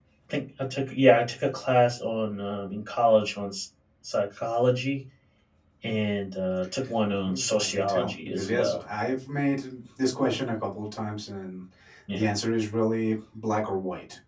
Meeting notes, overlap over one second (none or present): present